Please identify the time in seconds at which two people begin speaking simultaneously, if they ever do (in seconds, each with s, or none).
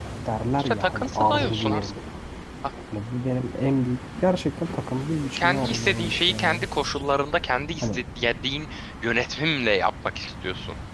0.6 s